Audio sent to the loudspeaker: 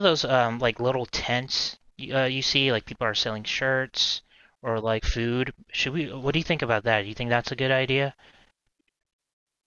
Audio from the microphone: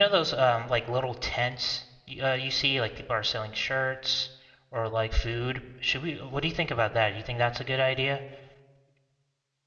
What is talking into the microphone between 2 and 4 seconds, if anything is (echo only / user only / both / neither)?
echo only